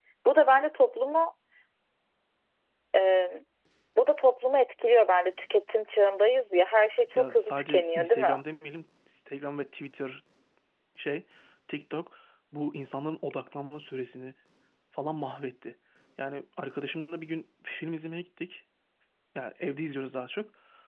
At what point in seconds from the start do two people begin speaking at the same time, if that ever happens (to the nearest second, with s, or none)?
7 s